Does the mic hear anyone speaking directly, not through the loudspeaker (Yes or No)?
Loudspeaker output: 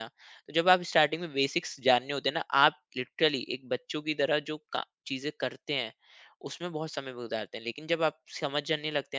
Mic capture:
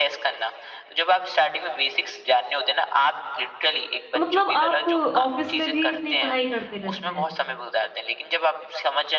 Yes